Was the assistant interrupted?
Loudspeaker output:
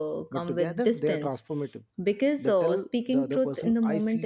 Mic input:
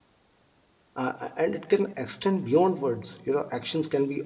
Yes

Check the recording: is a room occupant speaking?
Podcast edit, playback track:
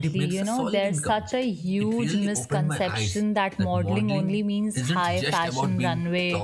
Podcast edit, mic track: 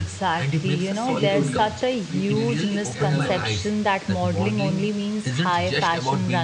Yes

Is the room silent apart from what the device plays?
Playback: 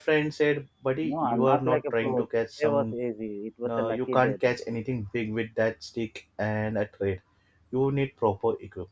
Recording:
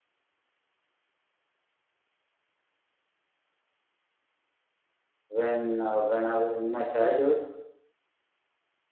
No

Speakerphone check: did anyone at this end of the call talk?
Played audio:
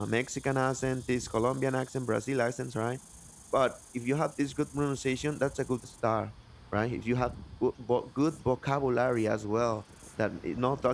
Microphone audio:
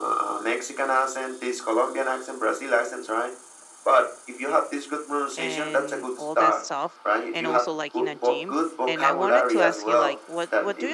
Yes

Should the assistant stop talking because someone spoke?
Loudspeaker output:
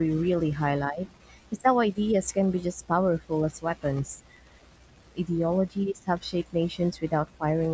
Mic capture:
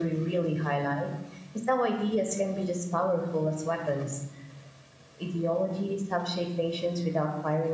No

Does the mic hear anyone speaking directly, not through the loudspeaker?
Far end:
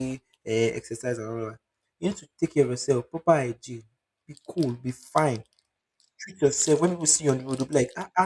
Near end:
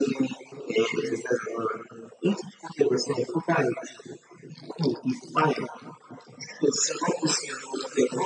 No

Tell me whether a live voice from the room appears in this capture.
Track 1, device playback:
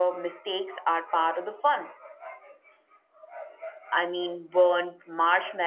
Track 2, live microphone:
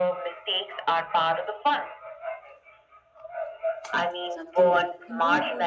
Yes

